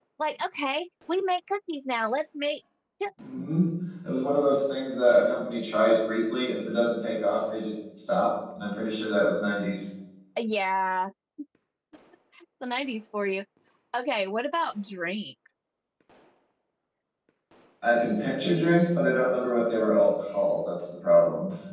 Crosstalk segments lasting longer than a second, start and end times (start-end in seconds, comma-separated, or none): none